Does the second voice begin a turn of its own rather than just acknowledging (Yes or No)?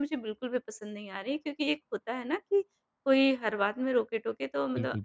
No